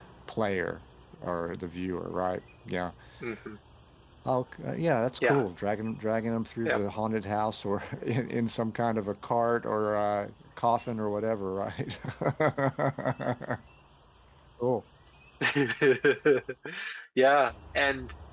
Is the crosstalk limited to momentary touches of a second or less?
Yes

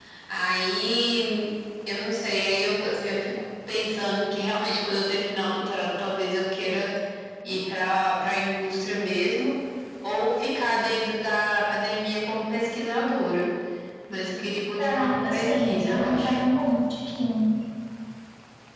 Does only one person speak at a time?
No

